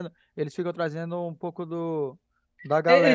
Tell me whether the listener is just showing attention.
No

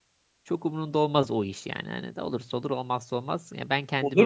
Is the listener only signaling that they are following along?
No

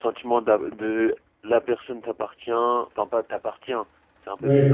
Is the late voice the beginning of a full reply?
No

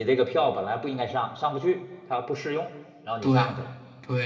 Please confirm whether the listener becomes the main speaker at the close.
Yes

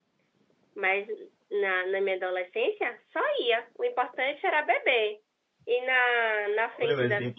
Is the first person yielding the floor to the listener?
Yes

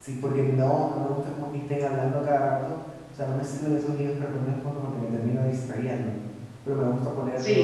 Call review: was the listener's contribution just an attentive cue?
No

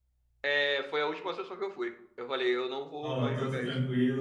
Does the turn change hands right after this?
Yes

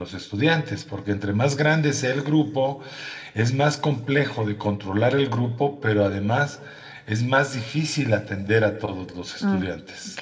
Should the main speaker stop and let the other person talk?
Yes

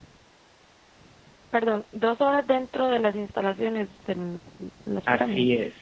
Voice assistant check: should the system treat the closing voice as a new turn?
Yes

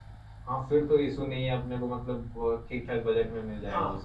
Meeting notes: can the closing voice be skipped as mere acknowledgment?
No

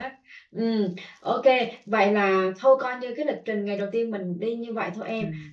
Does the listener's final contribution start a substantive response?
No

